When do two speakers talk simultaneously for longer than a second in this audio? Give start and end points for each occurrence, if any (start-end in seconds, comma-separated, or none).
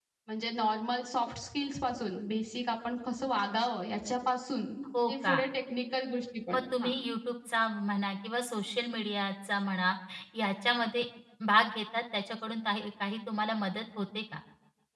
none